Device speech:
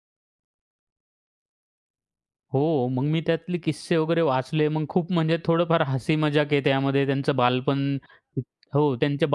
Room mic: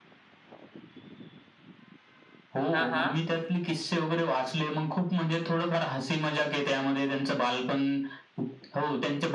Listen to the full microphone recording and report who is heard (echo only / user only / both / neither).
both